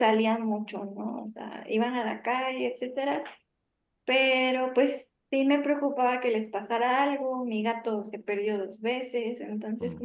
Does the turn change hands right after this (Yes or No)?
No